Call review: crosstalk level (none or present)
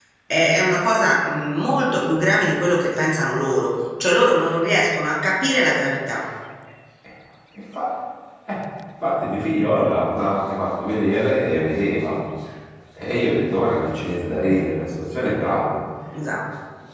none